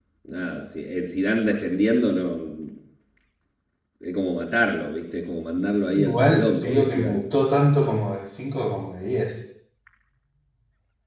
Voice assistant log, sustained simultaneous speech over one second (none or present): present